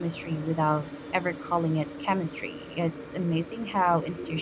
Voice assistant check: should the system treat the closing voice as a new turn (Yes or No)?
No